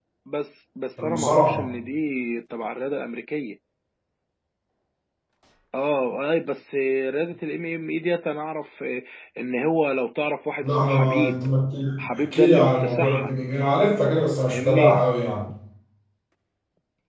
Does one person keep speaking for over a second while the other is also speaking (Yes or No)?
Yes